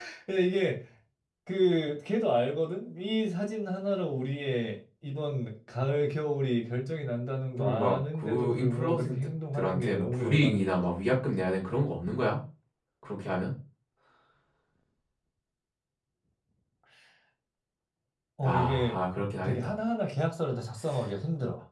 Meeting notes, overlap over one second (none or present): present